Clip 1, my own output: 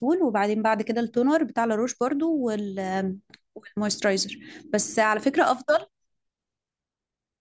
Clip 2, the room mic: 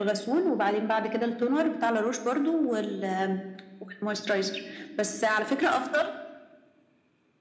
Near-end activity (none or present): none